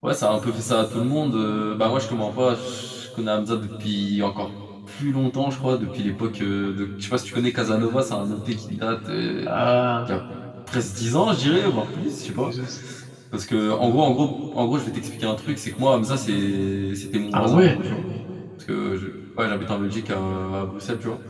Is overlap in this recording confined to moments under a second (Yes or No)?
Yes